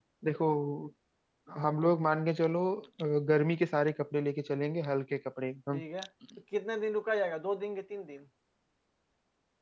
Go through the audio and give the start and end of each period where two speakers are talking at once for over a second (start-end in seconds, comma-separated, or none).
none